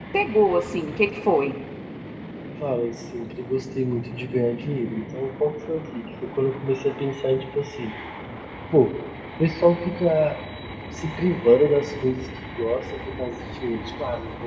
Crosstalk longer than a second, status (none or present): none